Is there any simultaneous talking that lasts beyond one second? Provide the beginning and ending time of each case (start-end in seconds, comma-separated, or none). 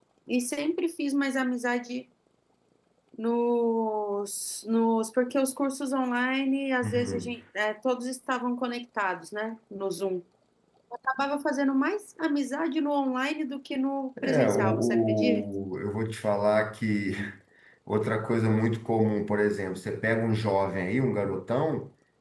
14.2-15.4